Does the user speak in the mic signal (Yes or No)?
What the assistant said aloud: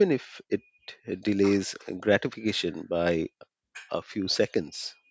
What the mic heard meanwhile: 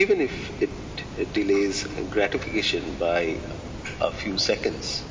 No